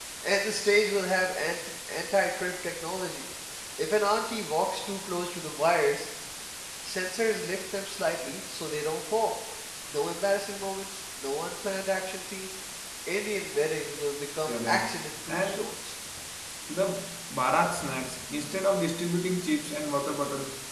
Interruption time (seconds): 14.4 s

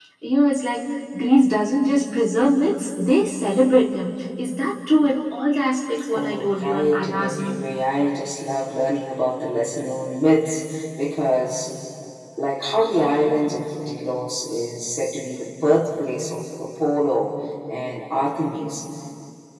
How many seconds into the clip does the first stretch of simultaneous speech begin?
6.1 s

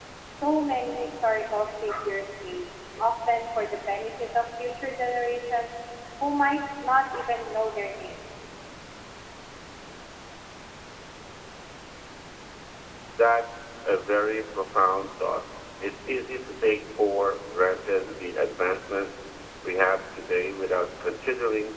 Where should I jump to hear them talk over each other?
none

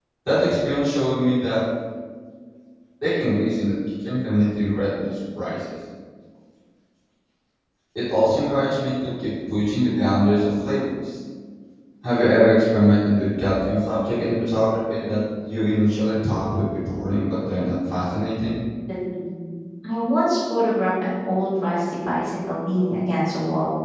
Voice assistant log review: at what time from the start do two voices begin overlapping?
none

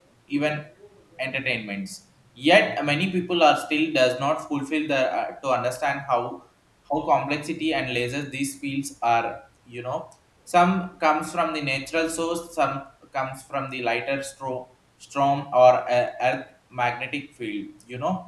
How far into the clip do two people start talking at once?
none

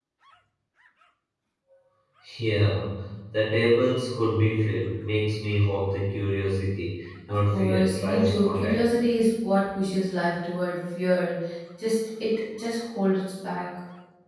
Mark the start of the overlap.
7.5 s

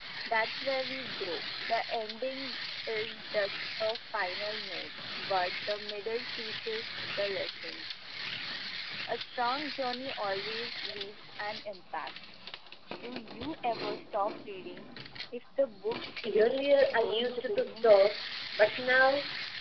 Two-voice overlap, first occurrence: 16.2 s

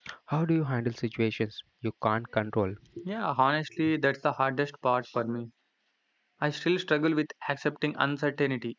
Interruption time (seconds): none

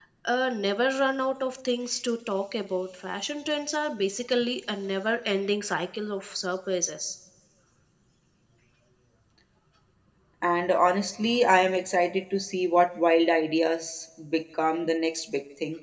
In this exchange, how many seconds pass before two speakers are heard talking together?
none

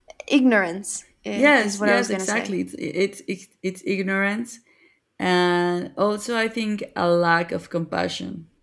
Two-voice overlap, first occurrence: 1.3 s

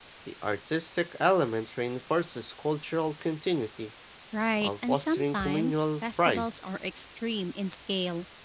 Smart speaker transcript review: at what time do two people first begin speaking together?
4.6 s

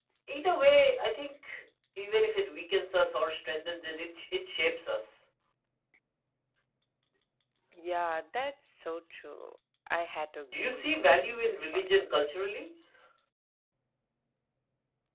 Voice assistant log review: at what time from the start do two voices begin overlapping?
10.4 s

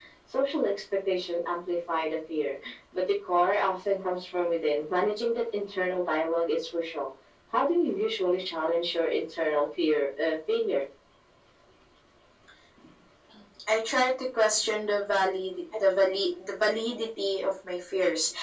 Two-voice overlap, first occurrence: none

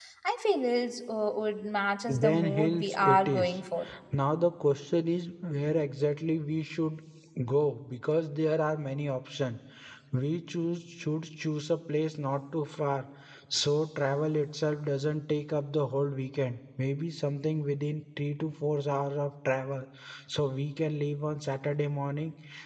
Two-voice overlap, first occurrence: 2.1 s

